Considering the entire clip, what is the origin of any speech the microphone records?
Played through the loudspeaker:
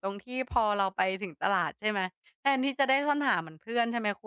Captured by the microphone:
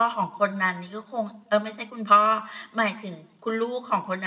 user only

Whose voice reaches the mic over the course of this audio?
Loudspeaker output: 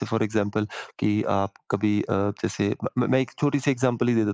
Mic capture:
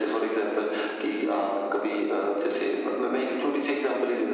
echo only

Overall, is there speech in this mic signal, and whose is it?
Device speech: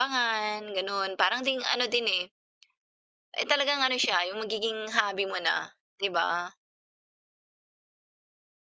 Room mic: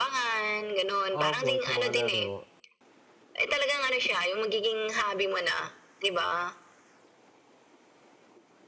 both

